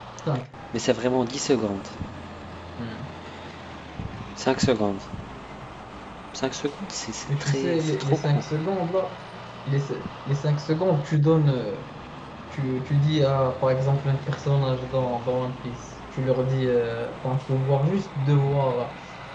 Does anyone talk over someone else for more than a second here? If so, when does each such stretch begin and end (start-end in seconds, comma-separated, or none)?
7.3-8.5